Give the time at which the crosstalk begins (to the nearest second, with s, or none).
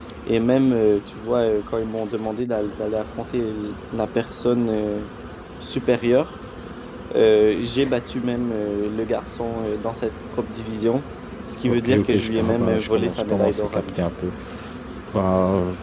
12 s